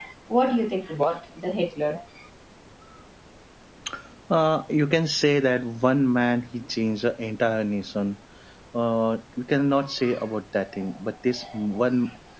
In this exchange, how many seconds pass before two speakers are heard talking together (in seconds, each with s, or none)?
none